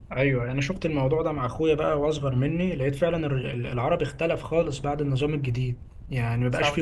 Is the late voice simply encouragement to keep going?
Yes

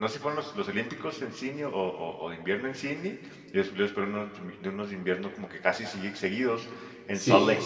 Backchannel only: Yes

